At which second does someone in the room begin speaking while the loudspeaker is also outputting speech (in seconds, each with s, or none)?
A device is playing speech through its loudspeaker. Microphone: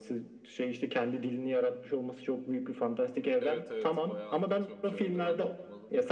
3.4 s